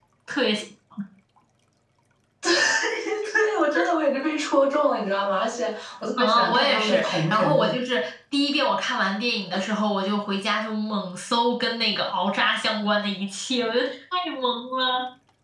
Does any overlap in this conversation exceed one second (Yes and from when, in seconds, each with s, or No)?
Yes, from 6.2 s